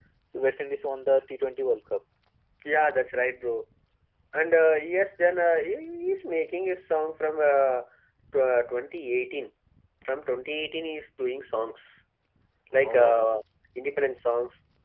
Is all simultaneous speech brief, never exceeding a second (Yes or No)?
Yes